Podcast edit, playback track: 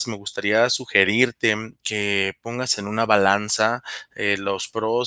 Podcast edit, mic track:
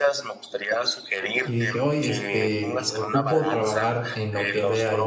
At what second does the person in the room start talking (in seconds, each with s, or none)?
1.4 s